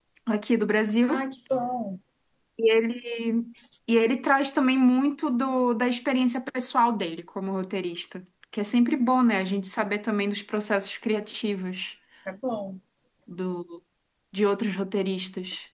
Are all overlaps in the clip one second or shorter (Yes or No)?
Yes